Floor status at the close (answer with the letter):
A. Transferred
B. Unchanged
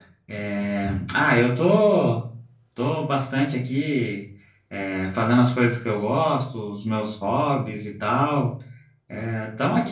A